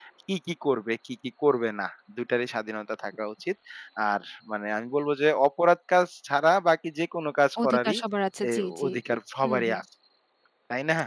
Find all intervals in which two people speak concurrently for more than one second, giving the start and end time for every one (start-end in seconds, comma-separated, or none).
none